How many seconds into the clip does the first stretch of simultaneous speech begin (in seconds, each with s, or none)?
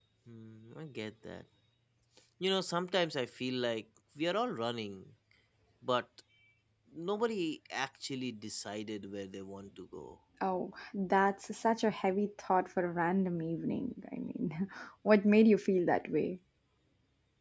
none